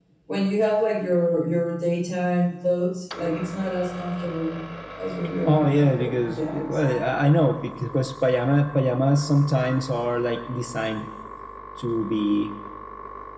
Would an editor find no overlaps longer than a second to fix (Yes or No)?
No